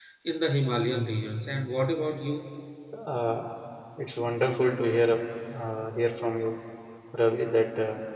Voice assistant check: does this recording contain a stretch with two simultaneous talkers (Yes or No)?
No